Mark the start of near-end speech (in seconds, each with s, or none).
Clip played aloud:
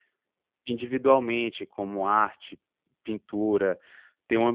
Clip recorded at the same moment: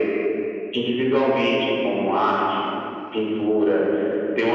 none